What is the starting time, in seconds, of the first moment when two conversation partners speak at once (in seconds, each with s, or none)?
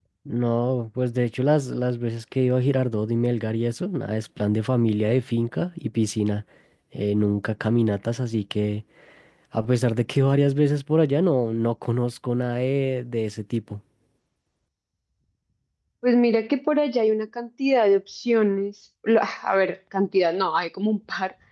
none